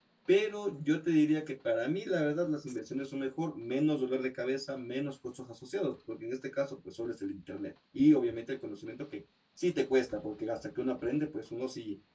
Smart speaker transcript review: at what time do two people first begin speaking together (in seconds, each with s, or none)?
none